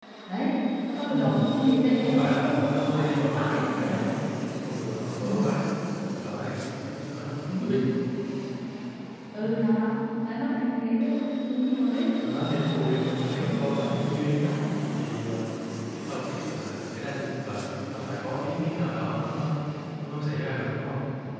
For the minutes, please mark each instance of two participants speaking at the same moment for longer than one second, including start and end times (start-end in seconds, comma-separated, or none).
1.9-4.0, 12.2-14.5